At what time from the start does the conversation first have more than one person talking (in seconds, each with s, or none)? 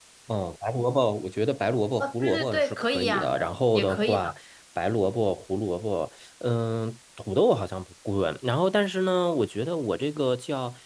2.0 s